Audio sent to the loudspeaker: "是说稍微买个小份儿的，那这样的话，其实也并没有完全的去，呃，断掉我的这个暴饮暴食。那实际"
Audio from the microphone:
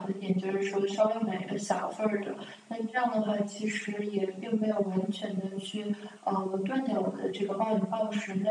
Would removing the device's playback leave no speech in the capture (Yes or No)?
Yes